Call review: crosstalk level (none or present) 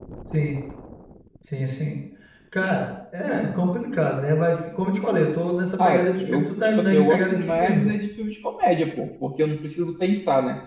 present